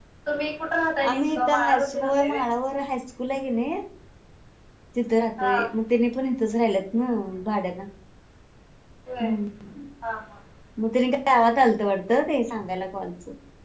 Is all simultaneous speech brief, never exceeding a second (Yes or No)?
No